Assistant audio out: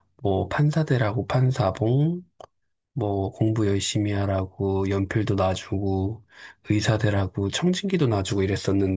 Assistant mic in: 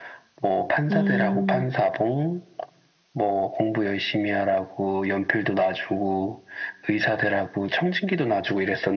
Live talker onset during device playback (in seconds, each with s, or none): 0.9 s